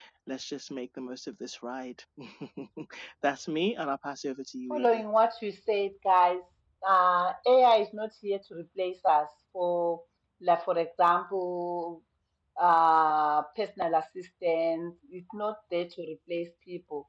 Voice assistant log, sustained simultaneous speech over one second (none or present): none